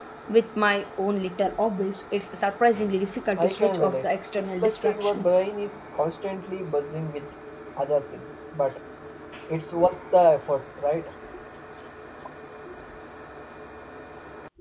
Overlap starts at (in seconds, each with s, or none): 3.4 s